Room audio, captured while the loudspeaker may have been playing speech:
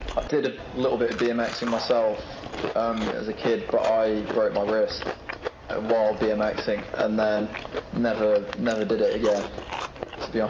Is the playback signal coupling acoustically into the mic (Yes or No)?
Yes